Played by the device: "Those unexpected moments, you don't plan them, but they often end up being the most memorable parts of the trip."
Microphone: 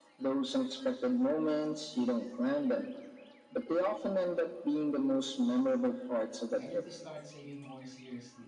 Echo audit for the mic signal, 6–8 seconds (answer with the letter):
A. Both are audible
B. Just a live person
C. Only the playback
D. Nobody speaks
A